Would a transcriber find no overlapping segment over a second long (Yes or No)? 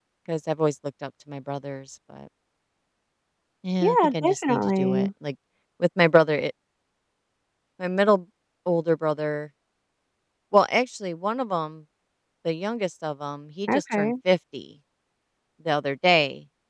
No